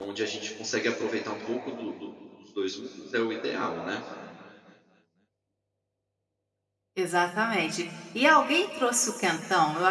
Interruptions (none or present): none